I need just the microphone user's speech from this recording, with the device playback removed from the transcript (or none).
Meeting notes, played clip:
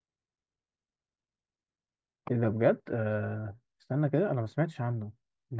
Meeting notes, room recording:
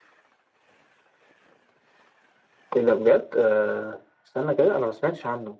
none